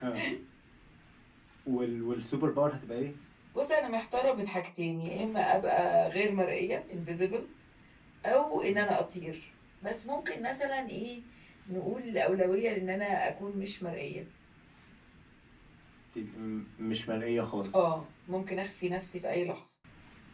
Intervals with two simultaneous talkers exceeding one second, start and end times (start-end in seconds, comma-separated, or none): none